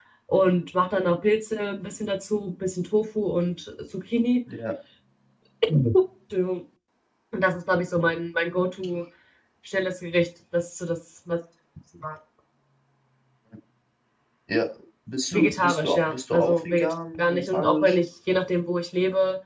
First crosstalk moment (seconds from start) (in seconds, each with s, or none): 15.3 s